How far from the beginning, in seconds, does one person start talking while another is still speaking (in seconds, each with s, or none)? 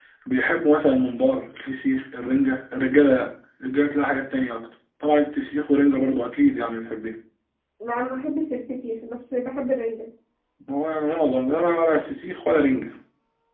none